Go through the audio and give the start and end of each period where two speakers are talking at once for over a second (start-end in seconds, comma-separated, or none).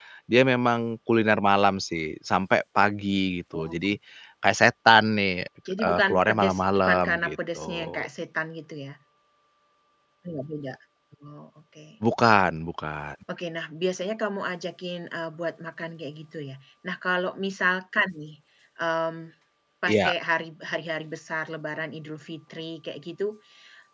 5.8-8.1